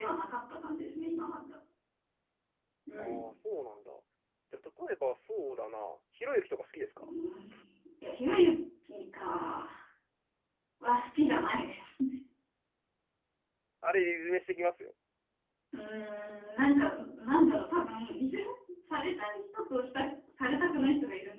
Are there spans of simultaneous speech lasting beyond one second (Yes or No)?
No